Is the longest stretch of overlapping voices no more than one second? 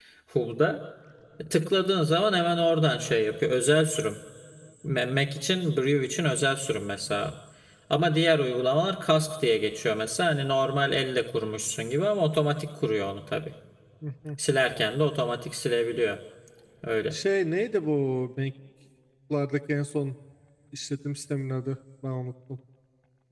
Yes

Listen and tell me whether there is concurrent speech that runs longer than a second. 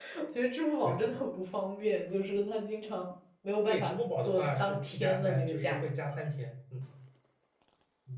Yes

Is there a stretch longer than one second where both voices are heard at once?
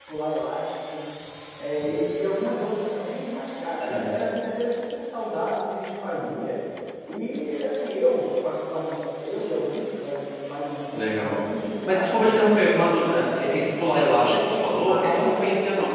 Yes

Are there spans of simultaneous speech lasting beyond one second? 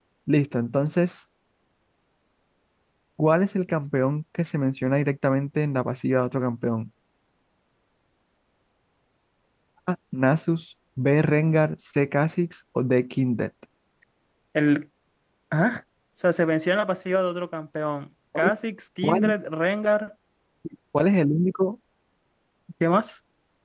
No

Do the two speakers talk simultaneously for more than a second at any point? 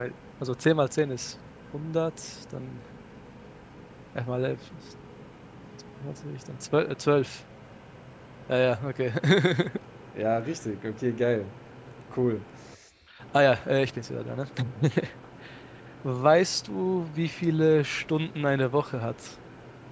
No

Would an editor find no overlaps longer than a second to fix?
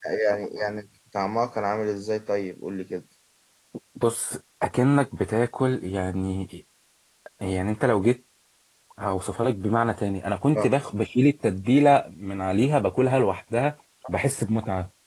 Yes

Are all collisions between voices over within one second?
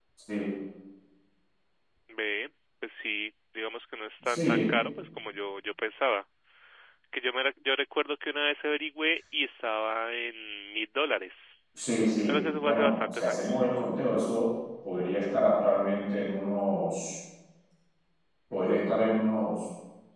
No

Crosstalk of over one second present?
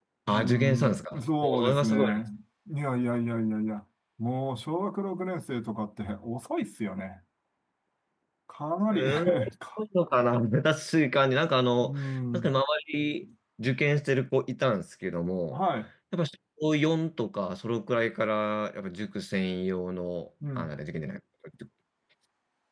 Yes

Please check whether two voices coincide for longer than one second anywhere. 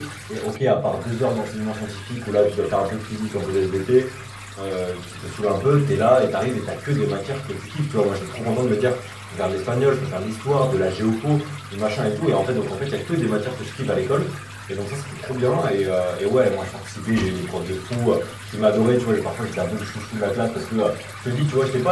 No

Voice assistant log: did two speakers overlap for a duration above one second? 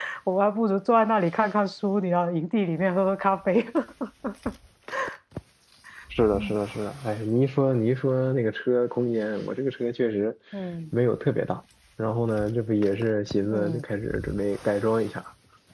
No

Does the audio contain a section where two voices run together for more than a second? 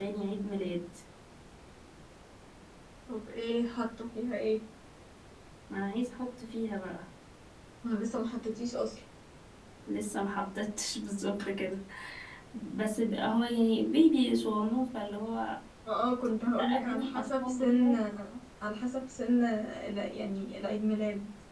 Yes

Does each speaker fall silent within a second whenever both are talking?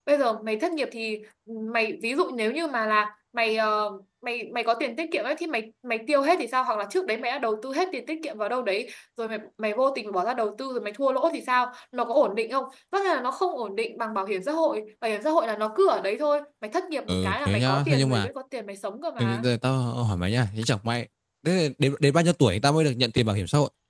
No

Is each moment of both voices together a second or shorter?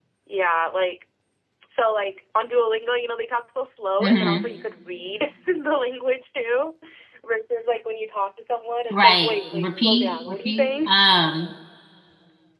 No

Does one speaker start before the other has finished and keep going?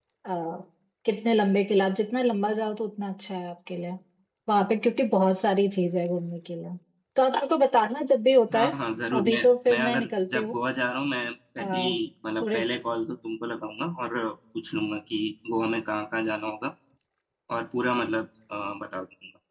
Yes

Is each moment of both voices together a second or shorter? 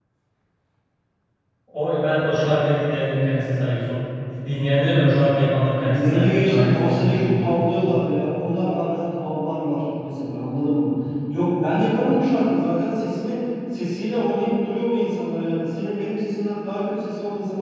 No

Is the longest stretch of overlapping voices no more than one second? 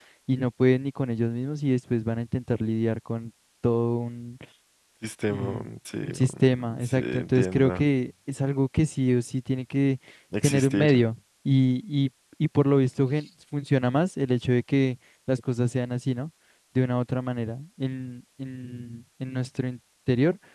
No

